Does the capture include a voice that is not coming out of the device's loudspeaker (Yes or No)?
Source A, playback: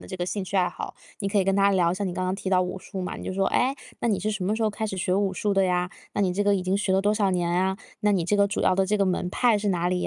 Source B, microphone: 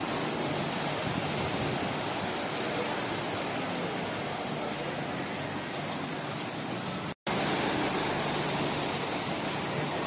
No